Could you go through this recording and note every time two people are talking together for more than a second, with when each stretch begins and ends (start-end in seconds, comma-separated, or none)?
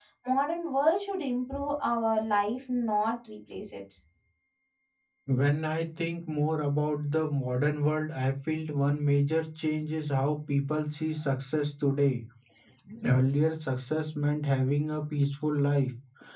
none